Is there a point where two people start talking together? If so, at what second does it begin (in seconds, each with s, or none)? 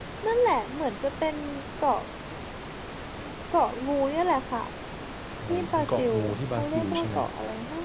5.5 s